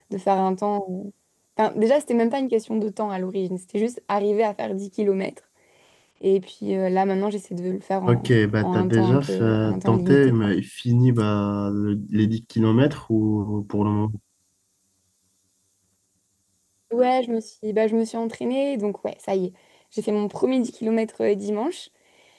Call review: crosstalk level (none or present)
present